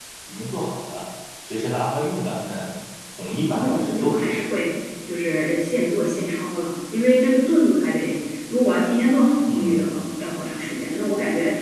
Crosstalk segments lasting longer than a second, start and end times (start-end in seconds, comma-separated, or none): 3.3-4.5